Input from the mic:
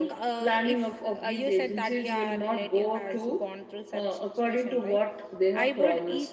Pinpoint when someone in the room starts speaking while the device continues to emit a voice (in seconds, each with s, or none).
none